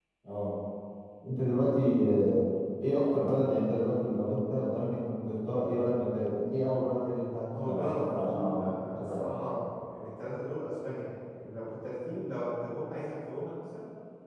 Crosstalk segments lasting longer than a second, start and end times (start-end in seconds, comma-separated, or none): 7.6-9.3